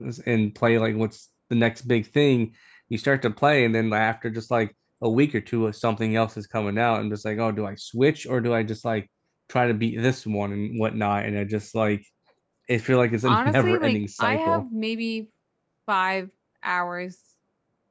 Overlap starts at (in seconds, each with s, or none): 13.2 s